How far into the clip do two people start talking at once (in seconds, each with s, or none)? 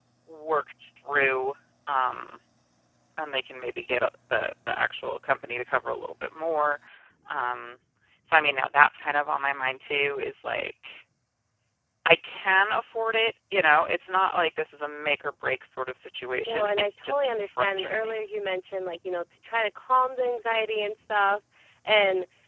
16.5 s